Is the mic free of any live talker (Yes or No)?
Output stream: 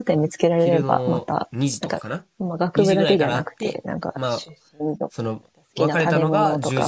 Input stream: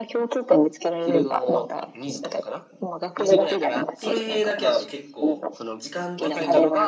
No